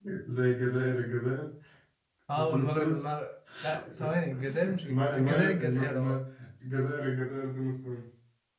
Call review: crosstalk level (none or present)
present